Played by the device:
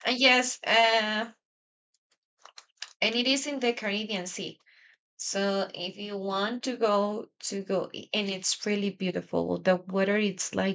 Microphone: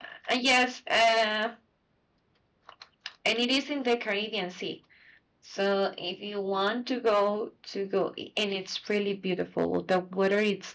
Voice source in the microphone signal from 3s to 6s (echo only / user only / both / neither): echo only